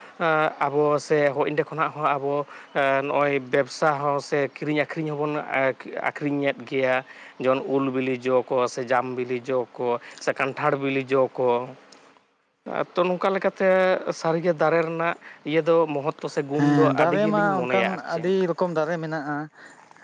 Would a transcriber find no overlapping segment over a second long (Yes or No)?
No